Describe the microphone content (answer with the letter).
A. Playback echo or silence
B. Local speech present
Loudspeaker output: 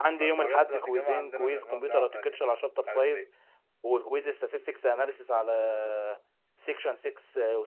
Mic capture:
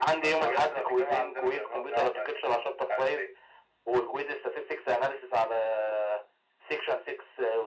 A